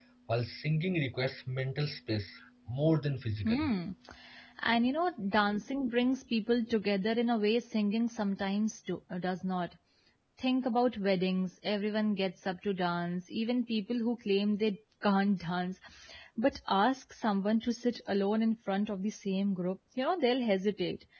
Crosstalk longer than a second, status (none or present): none